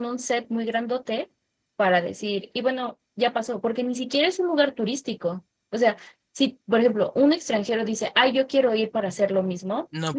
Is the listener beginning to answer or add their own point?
No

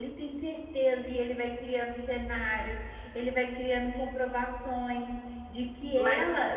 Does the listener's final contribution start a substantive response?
No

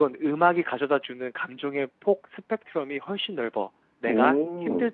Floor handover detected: No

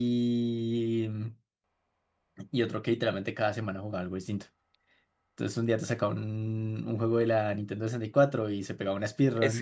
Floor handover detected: Yes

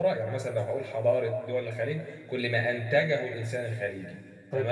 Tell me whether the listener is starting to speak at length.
No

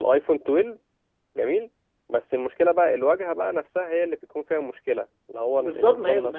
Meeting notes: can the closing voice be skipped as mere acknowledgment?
No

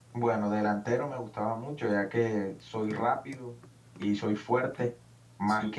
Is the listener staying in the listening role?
Yes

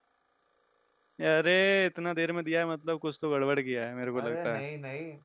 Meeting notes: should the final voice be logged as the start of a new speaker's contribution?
Yes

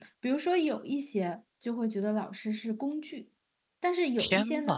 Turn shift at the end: No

